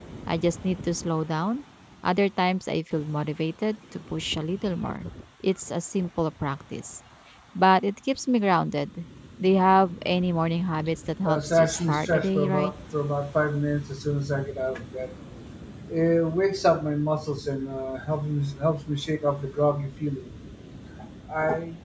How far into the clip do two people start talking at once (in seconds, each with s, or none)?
11.2 s